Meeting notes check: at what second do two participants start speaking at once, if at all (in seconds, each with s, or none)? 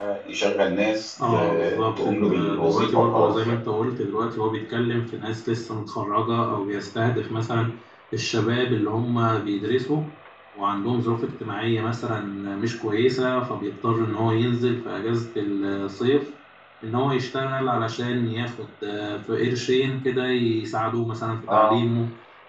1.3 s